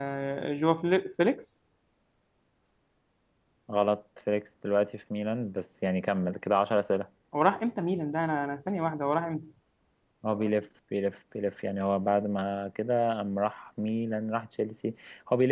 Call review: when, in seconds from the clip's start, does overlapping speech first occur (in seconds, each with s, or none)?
none